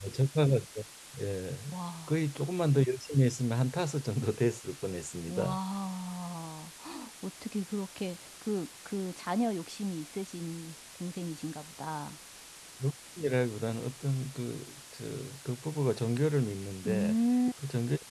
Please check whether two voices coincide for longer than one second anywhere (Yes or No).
No